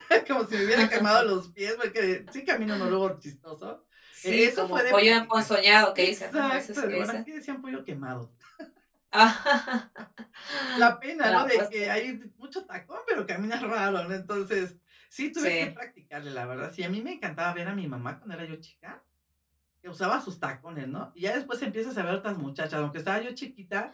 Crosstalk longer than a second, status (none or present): present